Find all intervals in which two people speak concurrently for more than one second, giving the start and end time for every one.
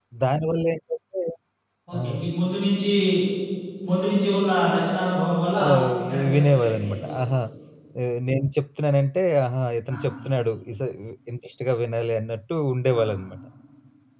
5.6-7.2

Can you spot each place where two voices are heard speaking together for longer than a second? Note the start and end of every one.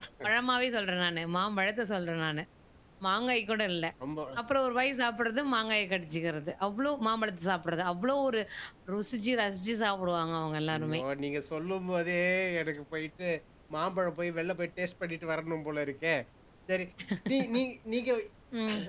none

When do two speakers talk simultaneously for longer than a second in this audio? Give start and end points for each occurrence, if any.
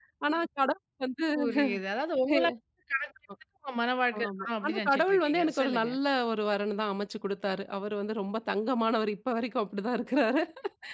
4.2-5.9

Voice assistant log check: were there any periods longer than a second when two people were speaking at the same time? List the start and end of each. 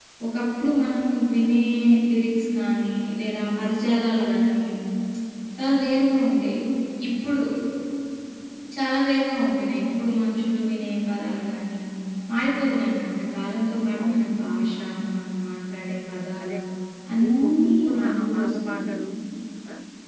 17.2-18.9

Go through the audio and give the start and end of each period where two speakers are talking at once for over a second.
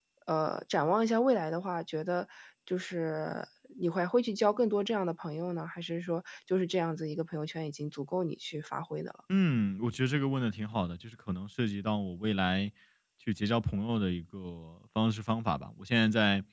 none

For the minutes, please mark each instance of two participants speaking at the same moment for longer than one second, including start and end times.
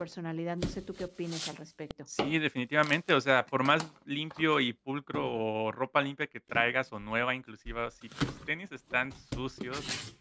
none

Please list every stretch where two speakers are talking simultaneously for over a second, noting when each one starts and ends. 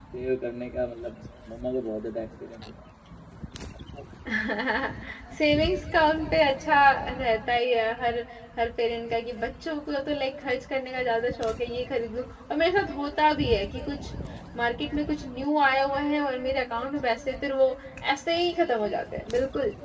none

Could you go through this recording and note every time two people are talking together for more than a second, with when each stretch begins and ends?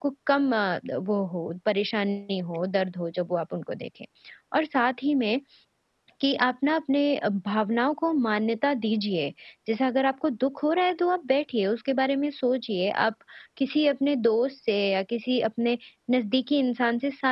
none

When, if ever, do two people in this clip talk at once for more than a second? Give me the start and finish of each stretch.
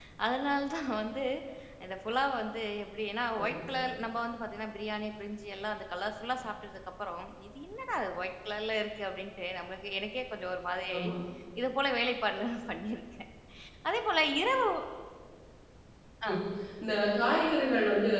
none

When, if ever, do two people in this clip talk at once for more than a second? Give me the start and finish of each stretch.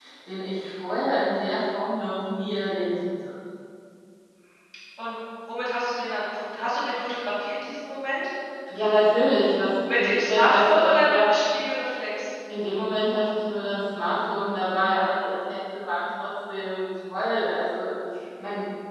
9.9-11.3

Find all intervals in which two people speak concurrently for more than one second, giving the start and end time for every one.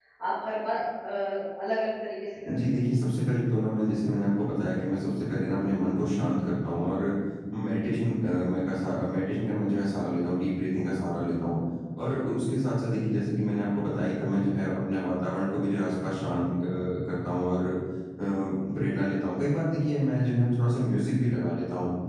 none

